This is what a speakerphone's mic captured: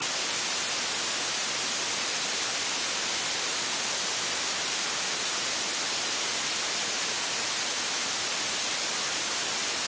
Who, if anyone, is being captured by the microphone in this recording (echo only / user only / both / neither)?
neither